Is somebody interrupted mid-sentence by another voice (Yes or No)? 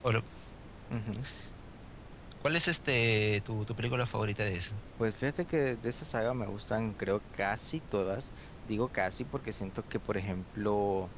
No